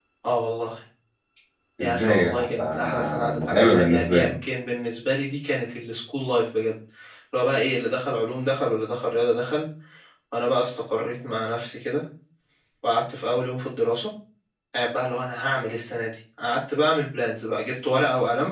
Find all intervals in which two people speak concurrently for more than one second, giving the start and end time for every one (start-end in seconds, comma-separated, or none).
1.8-4.3